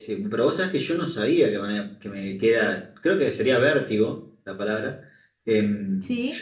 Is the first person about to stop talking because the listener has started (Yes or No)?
No